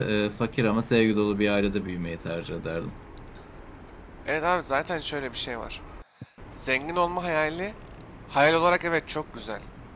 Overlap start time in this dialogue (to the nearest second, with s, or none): none